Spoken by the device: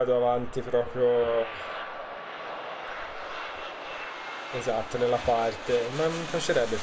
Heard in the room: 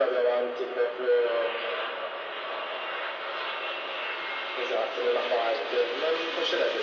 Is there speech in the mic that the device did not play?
No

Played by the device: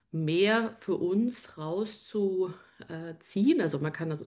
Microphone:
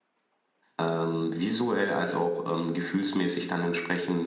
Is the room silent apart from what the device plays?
No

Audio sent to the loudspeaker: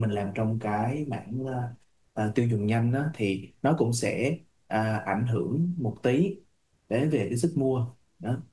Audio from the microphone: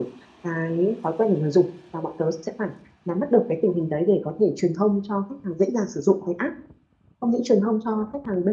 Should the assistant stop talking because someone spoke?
Yes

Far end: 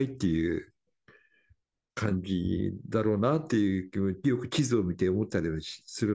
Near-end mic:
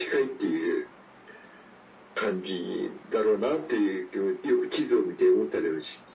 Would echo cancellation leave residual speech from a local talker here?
No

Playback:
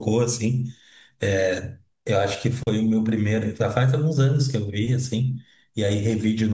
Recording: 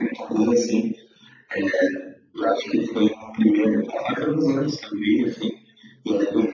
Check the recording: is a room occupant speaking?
No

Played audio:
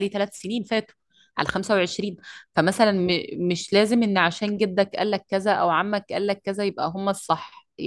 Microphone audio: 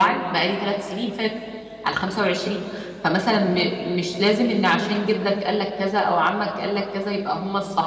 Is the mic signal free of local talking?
Yes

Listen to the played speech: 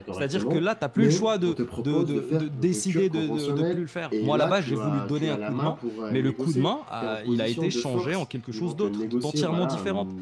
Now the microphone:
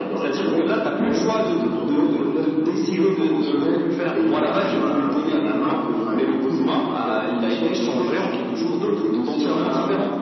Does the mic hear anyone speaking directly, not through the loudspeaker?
No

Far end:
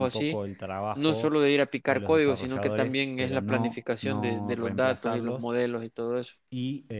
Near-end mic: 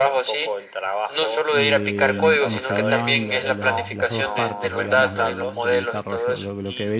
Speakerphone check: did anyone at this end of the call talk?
Yes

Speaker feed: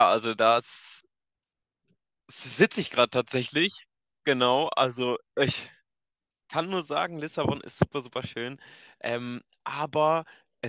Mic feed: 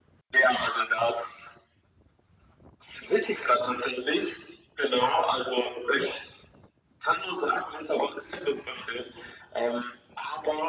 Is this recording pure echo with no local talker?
Yes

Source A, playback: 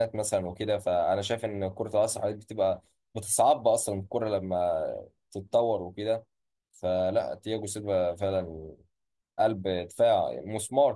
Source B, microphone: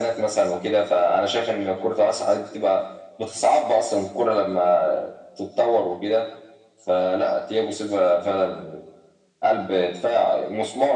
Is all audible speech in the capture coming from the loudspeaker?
Yes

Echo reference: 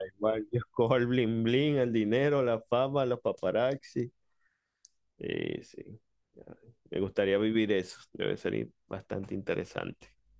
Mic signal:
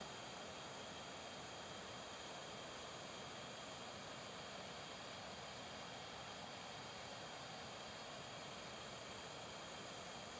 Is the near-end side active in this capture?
No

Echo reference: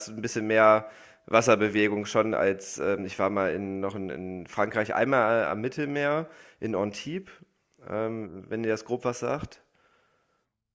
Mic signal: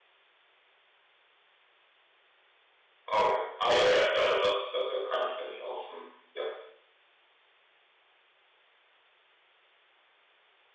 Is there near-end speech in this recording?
Yes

